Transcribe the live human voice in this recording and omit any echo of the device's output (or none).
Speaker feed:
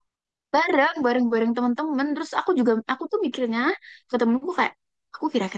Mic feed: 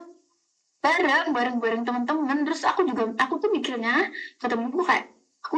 none